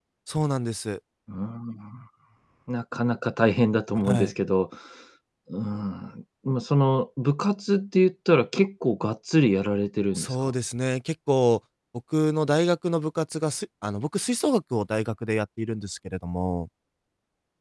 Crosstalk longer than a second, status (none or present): none